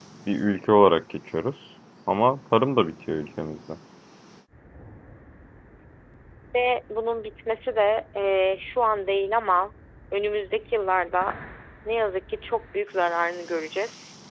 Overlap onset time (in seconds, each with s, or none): none